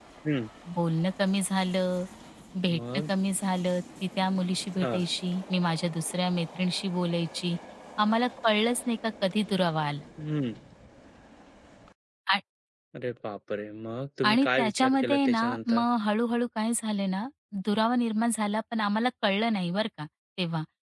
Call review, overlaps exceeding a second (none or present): present